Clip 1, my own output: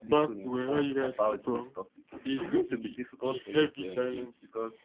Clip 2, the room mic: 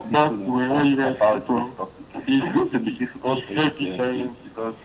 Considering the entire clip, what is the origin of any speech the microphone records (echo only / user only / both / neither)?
echo only